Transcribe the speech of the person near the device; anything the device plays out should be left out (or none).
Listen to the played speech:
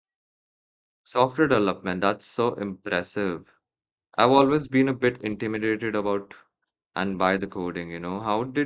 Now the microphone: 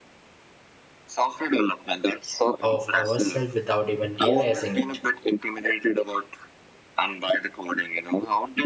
of ourselves without even realizing it.